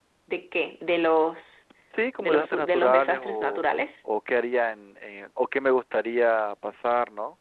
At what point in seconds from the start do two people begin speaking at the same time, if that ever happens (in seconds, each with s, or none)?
2.2 s